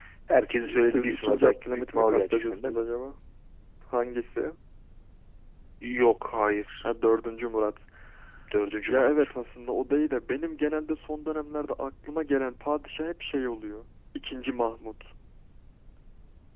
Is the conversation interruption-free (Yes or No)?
No